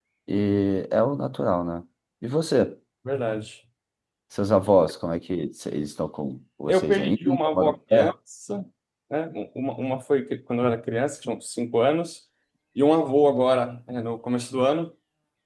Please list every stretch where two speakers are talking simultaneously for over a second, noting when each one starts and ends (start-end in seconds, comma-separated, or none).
6.7-8.1